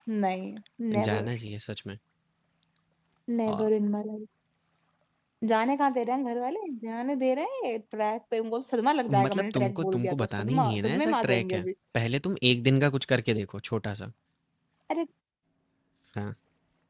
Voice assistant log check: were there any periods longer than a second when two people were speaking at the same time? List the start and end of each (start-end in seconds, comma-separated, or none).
9.2-11.7